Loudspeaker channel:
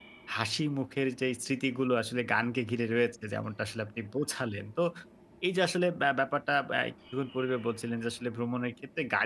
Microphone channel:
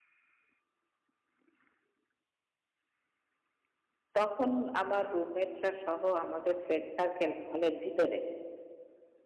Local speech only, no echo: তখন আমার রুমমেটরা সহ আমাদের ফ্রেন্ড সার্কেল, হলের ভিতরে

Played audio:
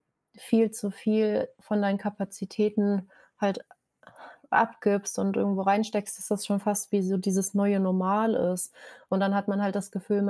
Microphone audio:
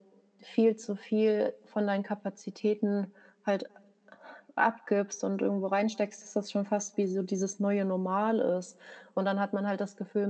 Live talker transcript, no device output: none

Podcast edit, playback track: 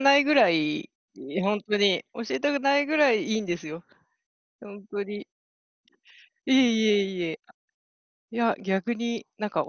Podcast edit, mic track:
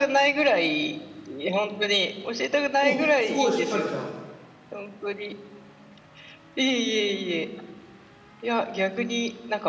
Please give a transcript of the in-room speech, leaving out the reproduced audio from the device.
お、すごいしっかりじゃあ

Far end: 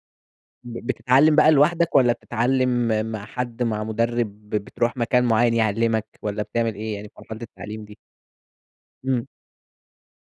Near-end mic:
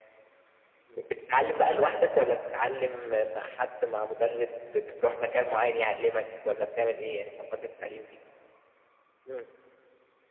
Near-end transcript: none

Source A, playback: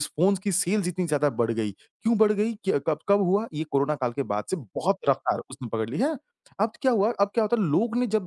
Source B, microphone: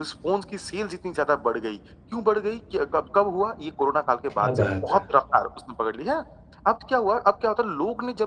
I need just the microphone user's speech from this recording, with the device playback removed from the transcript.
क्या बात है!

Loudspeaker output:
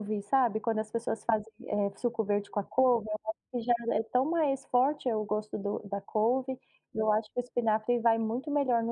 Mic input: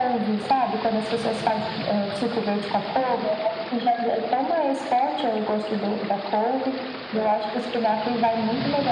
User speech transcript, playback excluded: none

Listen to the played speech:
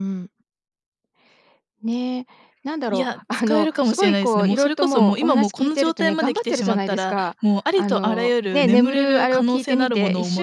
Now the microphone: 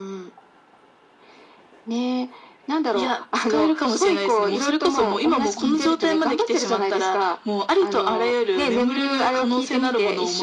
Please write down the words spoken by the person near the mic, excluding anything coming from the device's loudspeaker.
はい。

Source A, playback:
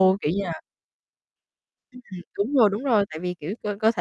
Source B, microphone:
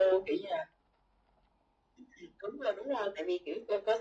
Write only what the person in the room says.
none

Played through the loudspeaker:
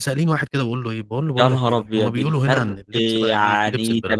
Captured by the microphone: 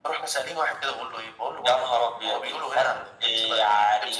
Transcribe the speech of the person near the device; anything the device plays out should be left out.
none

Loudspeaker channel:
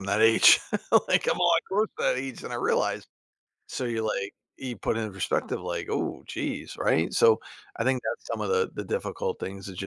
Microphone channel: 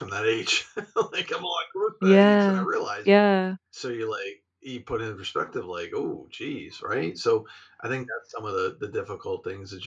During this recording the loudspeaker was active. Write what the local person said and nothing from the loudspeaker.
Yeah. Yeah.

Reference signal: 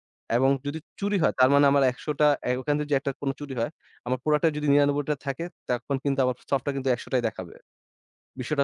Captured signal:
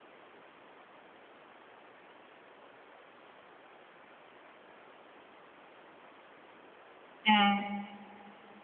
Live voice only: হ্যাঁ।

